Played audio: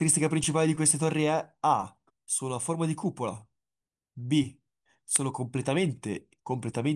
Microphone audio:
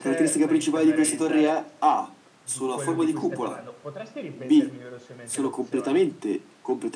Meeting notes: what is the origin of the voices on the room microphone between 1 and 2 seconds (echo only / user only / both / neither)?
both